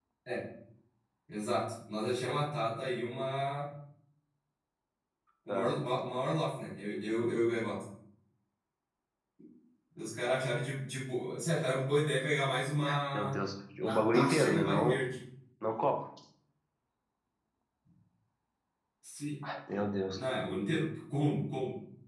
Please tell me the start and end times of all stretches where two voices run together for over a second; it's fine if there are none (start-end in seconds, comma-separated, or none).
13.8-15.0